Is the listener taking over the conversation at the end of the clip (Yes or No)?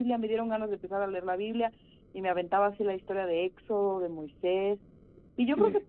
No